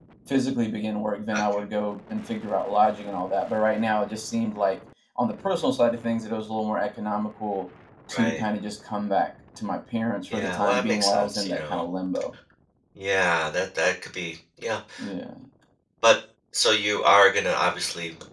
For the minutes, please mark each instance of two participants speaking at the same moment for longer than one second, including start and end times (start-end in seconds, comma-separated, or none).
10.3-11.8